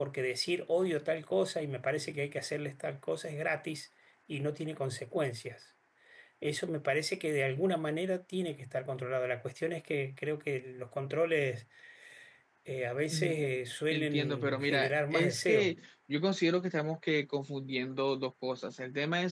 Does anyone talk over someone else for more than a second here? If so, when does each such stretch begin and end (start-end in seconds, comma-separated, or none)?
13.9-15.7